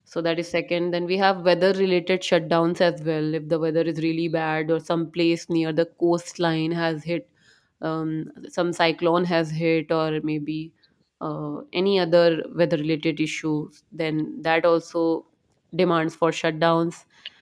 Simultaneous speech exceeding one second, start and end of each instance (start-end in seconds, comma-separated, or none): none